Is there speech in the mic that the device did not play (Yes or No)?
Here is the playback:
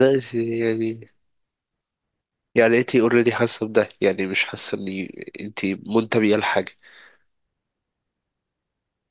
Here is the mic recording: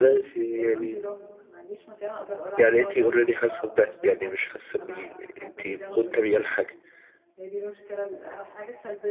Yes